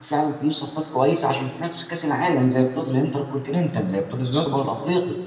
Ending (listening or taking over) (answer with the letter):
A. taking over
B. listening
B